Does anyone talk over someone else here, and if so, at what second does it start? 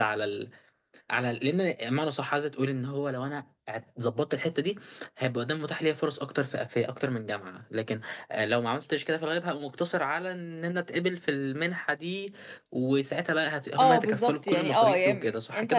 13.8 s

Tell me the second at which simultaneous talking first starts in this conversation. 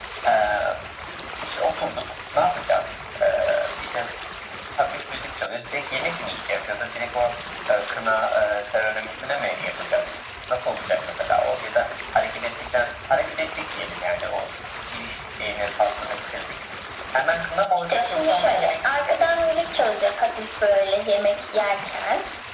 17.9 s

